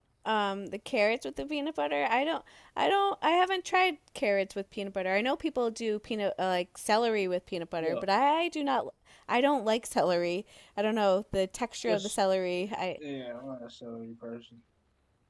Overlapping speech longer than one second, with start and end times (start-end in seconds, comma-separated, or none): none